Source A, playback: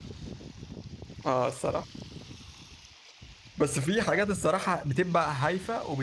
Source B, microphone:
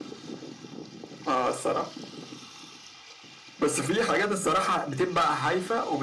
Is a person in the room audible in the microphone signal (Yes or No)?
No